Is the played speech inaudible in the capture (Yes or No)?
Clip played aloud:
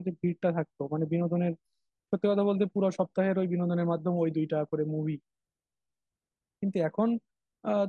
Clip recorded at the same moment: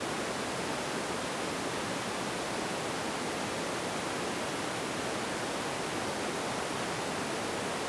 Yes